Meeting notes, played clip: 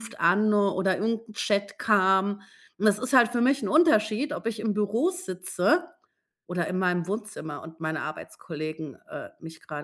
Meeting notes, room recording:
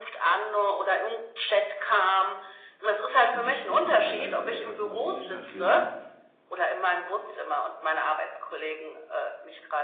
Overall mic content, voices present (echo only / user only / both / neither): both